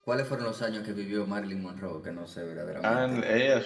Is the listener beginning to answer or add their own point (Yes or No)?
Yes